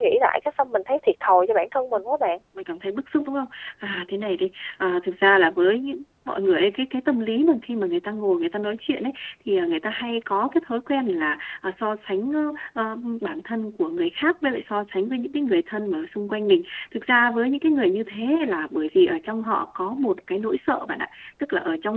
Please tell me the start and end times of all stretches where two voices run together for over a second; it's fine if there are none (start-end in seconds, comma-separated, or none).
none